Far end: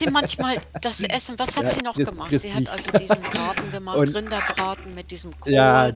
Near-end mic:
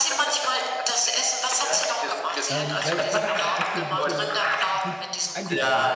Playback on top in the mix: Yes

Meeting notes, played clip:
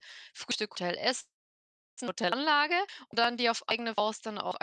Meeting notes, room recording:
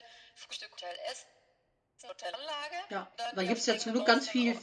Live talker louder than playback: Yes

